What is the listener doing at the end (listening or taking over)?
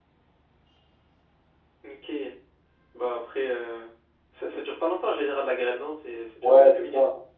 taking over